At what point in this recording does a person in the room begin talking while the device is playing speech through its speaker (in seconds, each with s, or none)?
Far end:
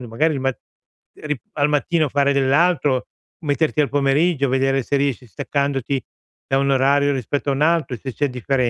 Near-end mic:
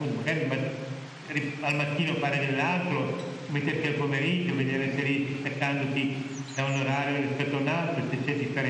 none